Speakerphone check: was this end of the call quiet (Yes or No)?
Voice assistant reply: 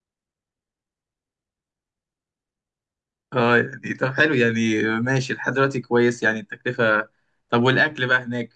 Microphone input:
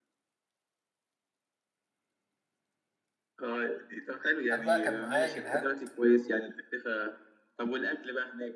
No